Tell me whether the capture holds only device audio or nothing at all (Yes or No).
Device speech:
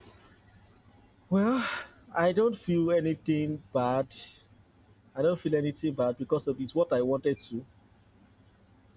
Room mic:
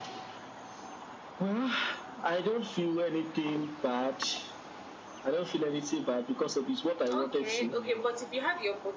No